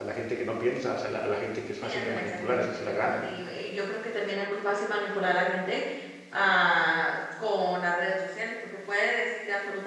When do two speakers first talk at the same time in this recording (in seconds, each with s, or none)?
1.8 s